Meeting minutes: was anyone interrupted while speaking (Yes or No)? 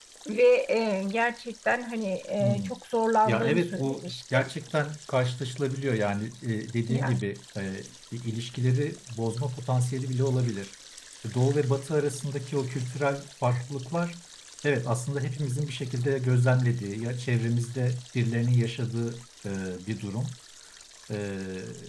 Yes